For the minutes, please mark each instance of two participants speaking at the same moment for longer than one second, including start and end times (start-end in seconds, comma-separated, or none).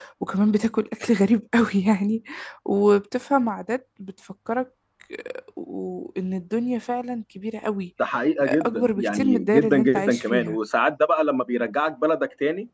8.5-10.6